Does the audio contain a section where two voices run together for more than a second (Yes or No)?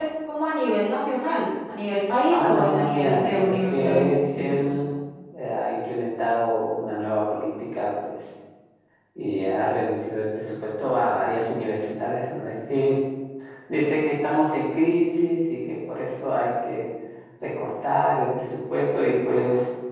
Yes